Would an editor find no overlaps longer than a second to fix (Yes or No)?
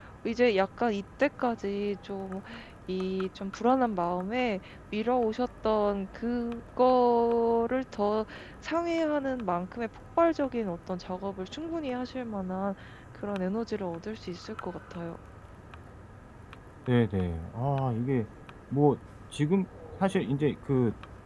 Yes